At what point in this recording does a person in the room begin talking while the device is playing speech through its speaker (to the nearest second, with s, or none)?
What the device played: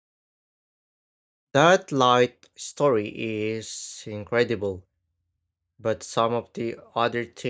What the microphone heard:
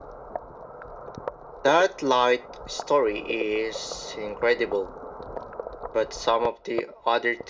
none